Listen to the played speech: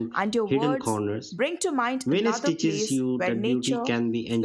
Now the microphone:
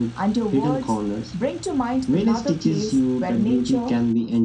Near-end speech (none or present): none